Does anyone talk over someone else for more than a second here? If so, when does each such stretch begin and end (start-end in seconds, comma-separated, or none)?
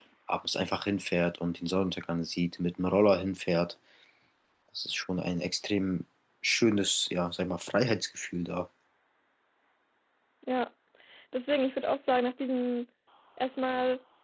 none